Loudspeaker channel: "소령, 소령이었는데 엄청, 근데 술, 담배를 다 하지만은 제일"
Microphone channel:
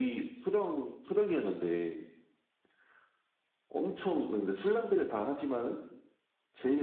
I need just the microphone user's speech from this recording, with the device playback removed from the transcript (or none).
none